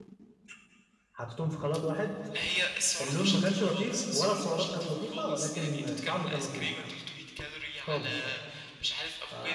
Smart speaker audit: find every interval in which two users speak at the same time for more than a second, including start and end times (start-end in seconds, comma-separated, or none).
3.0-6.7